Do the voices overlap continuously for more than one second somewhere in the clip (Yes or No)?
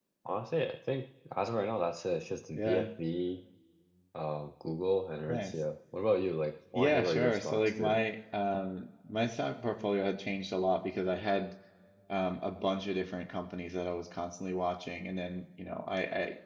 Yes